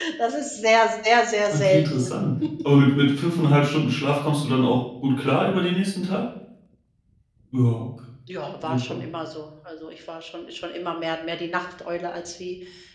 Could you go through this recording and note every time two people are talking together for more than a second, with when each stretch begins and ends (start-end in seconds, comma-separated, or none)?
none